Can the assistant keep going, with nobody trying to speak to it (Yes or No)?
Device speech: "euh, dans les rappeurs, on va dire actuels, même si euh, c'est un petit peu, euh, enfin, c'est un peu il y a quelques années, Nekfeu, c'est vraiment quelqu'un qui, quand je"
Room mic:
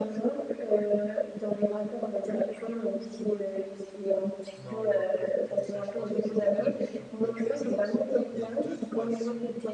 No